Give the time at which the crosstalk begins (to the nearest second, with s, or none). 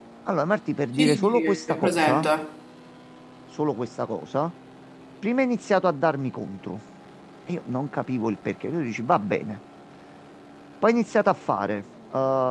1 s